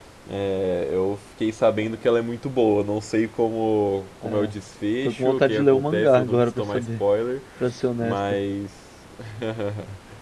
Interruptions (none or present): present